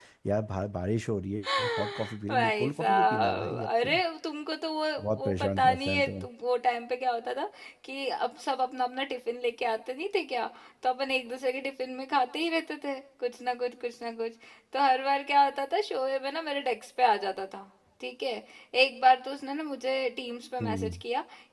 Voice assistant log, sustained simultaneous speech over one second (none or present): present